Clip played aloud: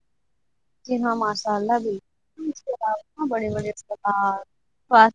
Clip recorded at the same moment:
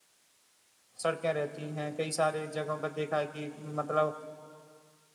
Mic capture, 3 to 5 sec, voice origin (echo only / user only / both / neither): user only